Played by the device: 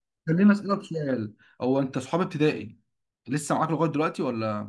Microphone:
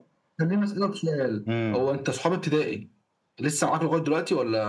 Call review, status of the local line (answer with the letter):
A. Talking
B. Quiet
A